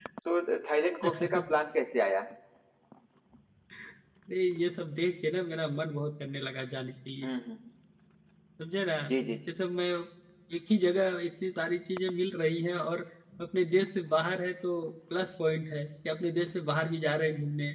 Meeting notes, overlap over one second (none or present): none